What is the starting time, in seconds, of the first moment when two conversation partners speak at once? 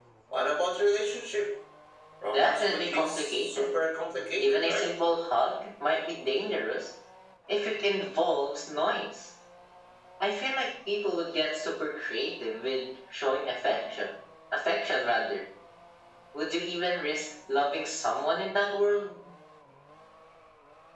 2.3 s

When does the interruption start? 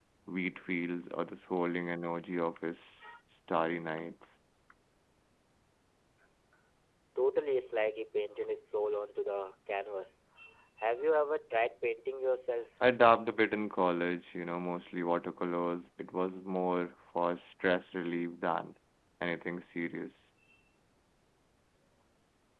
none

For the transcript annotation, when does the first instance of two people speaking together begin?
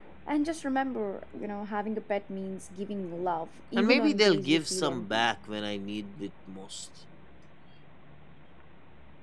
3.8 s

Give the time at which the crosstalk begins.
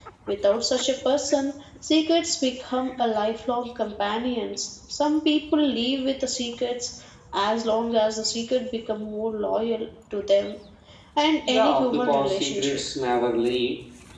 11.5 s

